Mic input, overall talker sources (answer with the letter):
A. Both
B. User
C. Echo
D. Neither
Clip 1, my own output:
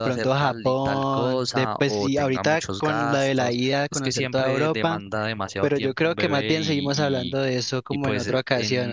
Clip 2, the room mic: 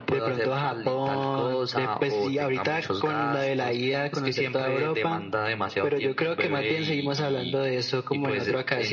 C